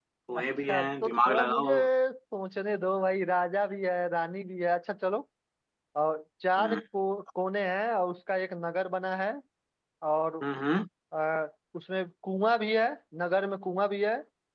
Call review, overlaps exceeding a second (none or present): present